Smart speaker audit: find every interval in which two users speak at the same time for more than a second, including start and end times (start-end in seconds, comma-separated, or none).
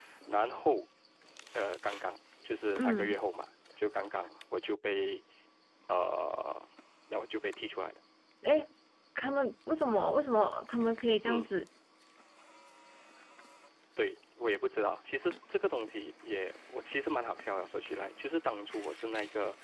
none